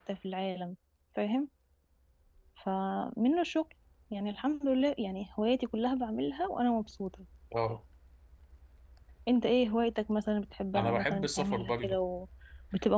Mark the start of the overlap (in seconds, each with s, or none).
10.7 s